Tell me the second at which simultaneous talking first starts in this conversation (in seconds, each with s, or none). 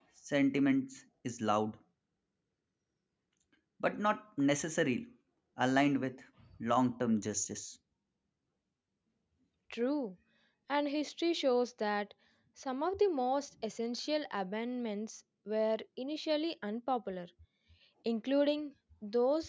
none